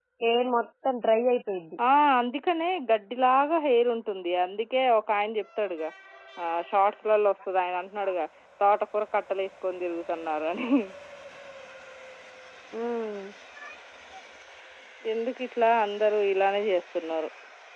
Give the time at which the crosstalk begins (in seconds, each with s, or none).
none